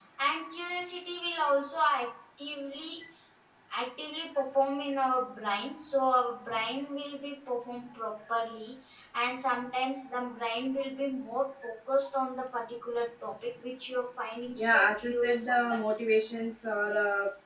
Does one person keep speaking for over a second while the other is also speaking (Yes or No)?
Yes